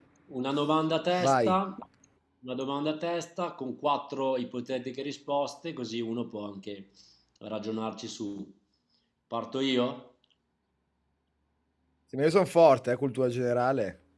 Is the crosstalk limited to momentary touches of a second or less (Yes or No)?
Yes